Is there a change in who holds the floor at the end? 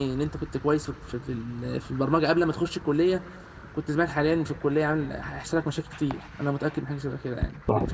Yes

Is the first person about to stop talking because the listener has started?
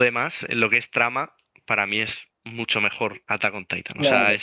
Yes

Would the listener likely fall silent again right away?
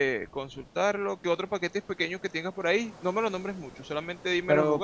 No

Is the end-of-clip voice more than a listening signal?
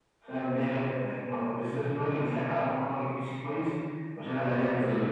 No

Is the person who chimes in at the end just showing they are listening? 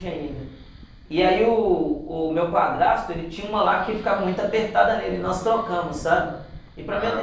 Yes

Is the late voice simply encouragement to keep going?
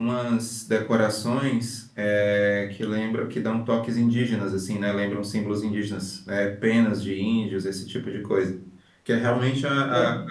Yes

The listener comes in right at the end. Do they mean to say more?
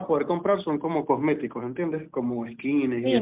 Yes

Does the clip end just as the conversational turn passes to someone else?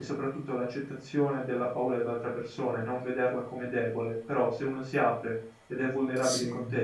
No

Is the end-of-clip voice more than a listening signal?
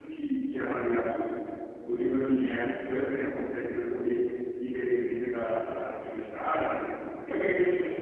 Yes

